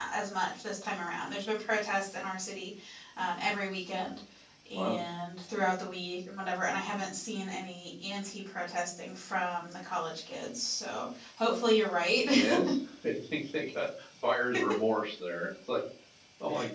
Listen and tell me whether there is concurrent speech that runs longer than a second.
No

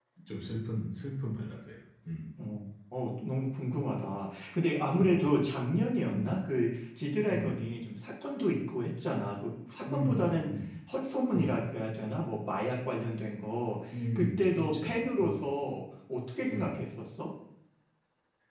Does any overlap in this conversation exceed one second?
Yes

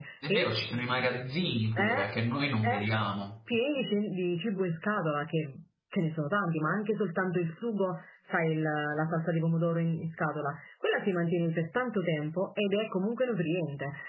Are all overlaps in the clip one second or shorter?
Yes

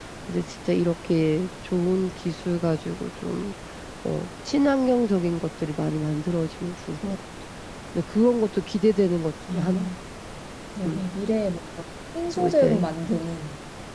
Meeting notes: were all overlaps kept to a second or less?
Yes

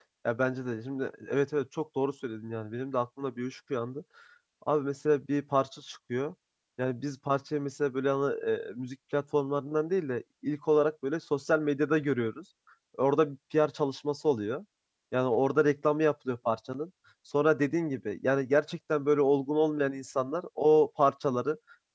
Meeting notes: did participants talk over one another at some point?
No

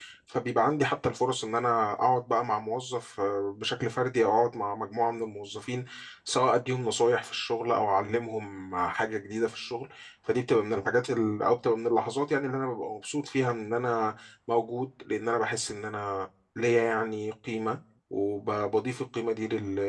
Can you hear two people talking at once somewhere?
No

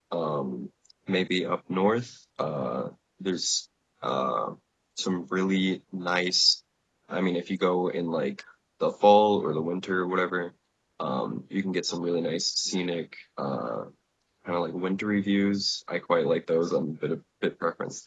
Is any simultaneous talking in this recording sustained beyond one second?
No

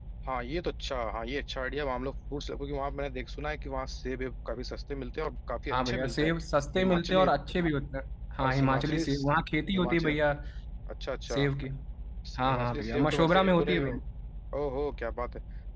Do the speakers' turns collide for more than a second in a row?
Yes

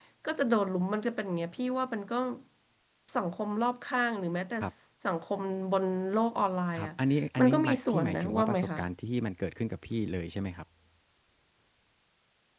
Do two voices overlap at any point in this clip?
Yes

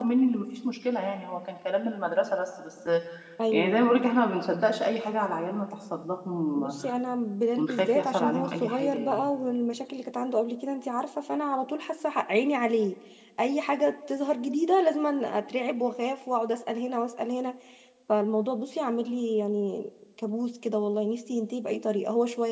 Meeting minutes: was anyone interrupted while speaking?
Yes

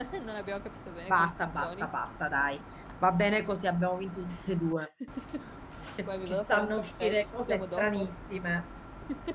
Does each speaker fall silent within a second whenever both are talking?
No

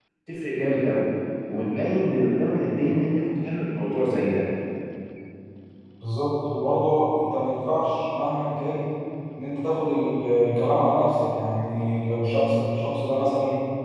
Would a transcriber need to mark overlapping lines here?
No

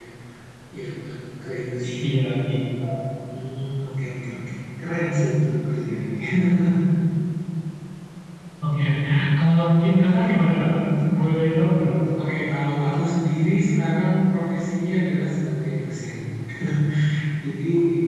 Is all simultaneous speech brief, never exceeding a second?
Yes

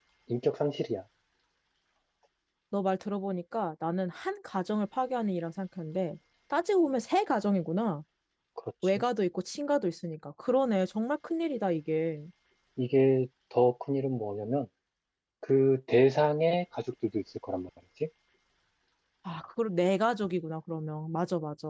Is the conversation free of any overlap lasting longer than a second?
Yes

